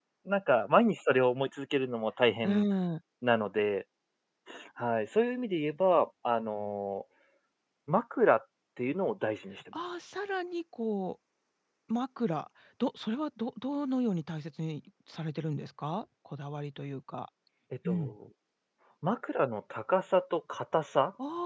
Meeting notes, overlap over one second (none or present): none